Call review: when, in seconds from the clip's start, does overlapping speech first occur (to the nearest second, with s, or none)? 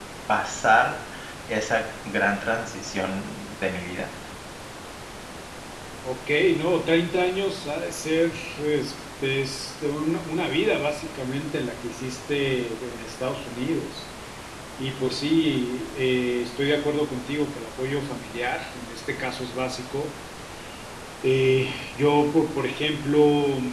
none